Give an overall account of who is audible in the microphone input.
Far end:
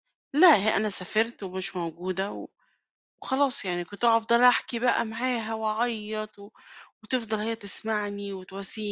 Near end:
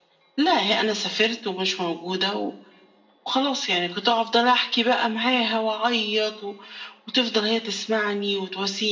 echo only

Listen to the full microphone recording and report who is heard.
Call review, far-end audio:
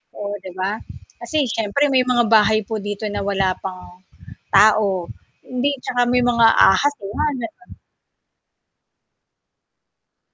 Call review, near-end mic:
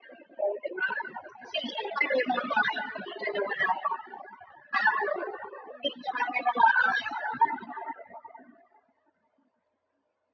echo only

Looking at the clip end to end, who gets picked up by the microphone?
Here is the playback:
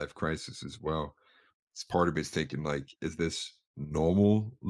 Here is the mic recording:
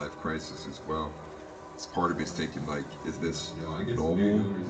both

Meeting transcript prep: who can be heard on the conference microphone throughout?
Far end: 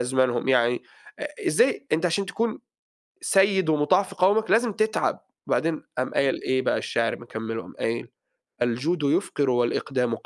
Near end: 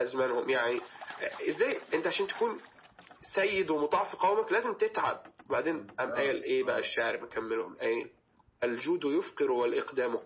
both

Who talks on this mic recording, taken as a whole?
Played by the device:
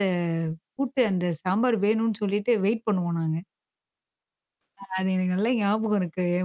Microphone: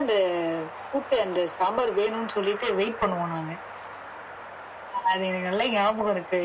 echo only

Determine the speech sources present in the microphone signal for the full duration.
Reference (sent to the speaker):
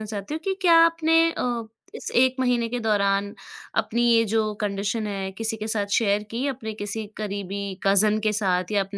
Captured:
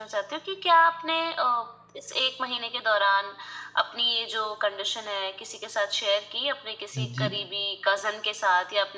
both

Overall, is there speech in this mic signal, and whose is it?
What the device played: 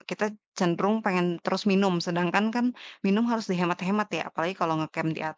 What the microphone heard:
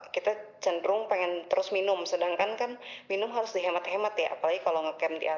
echo only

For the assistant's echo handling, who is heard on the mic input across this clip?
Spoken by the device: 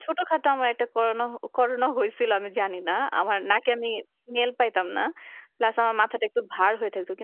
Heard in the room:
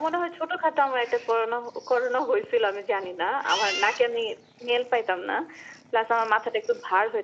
echo only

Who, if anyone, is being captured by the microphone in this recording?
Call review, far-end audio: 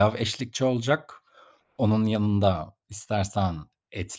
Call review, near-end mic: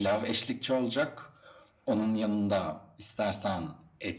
echo only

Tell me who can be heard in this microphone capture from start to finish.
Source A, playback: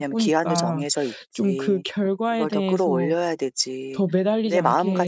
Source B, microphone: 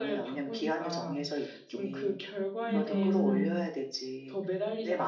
both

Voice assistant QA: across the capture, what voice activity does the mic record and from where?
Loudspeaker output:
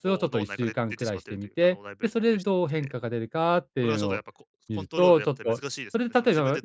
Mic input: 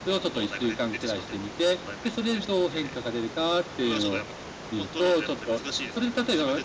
echo only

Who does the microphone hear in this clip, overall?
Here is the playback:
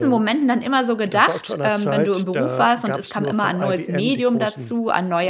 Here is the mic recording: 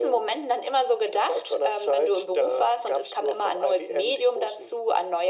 echo only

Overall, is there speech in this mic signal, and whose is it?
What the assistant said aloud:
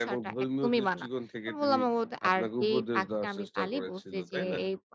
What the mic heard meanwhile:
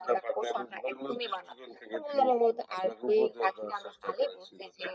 echo only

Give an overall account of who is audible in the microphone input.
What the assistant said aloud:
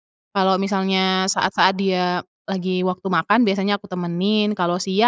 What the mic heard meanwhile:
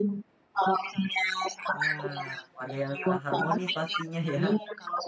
both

